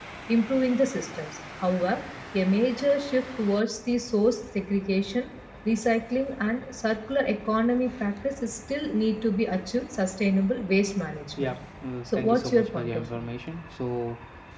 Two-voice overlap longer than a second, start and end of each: 12.1-13.3

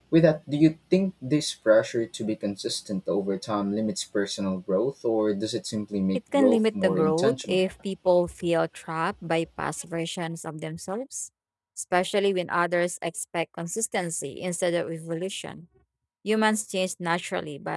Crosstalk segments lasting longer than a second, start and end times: 6.3-7.6

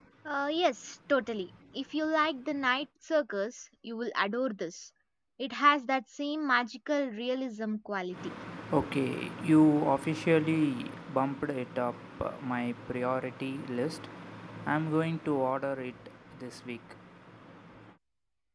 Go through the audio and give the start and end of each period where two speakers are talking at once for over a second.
none

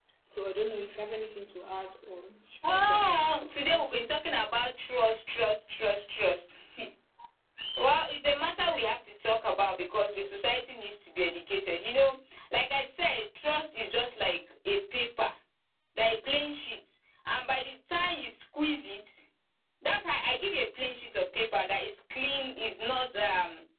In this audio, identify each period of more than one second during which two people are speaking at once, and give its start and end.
2.7-4.1

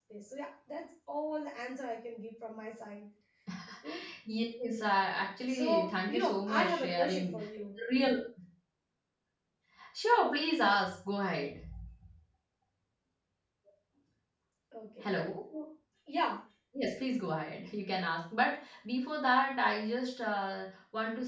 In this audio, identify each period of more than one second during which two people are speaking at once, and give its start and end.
5.5-7.5

